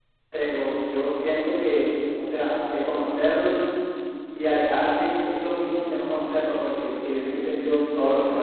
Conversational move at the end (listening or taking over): taking over